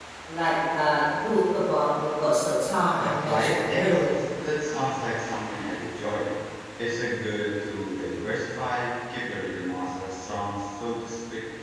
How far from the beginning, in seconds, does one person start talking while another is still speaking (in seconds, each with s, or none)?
3.0 s